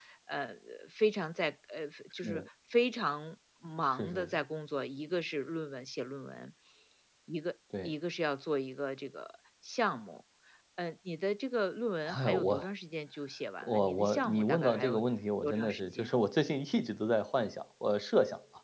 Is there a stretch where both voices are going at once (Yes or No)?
Yes